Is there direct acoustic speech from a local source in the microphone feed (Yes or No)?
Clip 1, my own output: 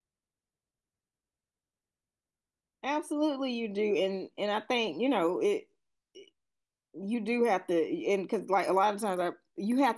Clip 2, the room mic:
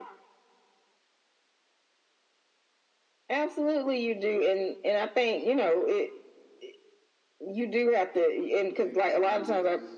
Yes